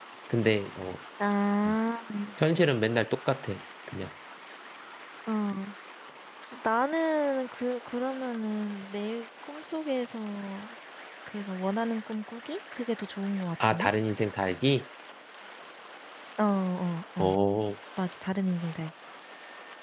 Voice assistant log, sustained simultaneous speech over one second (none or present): none